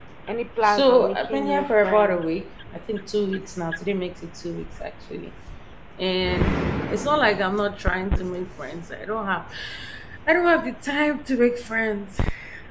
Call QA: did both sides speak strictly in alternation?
No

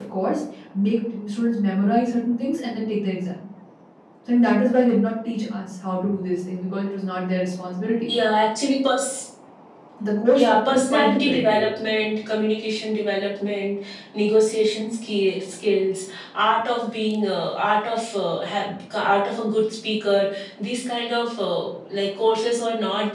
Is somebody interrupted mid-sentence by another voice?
Yes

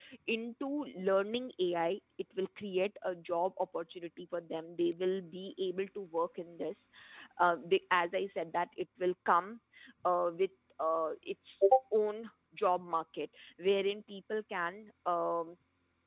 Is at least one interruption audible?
No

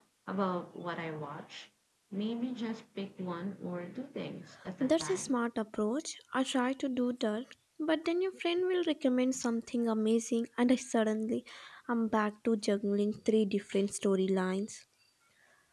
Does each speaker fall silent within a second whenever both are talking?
Yes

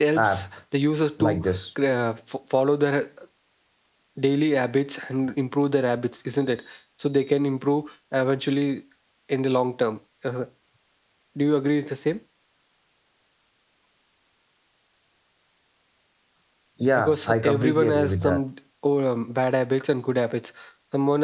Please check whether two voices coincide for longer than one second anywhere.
Yes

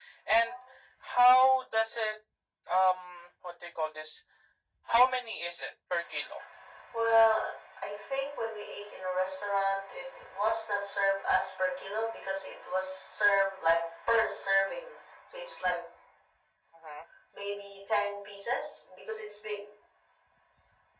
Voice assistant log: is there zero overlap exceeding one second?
Yes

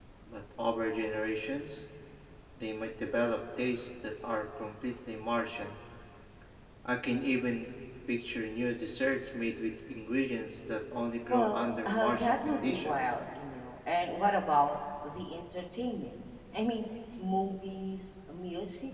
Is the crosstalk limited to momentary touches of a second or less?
No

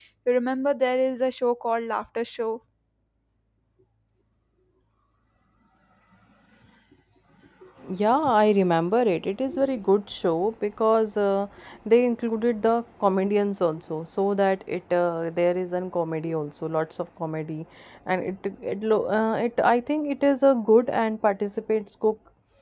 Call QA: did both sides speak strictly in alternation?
Yes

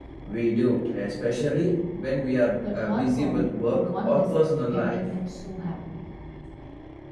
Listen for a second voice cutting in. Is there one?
Yes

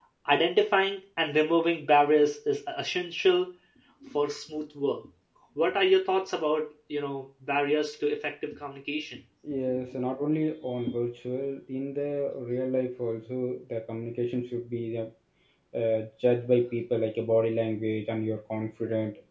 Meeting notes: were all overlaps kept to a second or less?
Yes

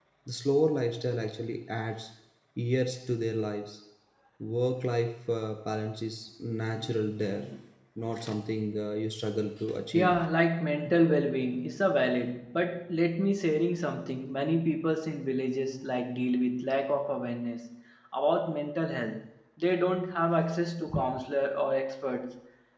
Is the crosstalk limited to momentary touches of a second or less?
Yes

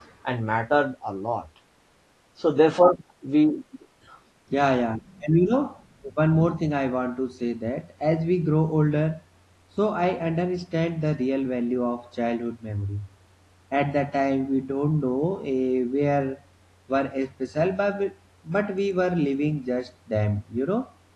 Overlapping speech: No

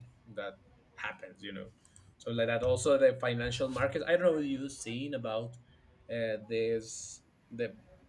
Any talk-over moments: No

